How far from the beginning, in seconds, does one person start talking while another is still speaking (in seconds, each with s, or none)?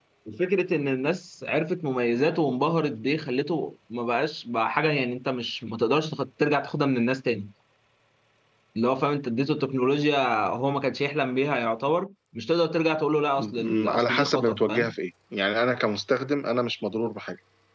13.4 s